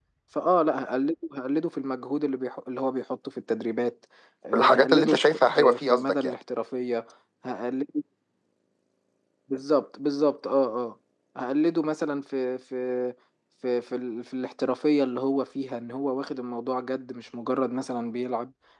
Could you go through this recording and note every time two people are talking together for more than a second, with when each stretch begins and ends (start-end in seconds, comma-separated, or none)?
4.5-6.3